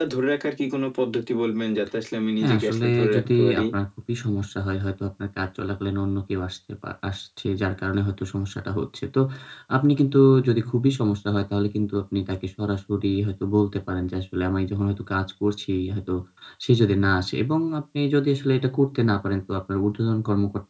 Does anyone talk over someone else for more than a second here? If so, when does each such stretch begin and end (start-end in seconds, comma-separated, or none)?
2.4-3.6